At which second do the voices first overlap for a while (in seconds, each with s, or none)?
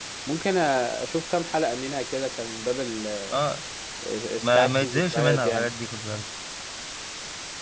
4.4 s